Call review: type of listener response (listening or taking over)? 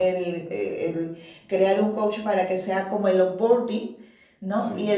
listening